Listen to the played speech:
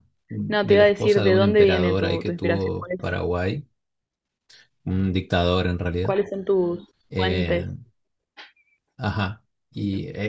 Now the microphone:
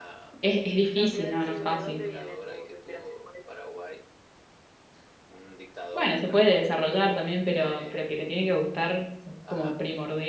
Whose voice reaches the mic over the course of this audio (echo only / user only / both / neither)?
both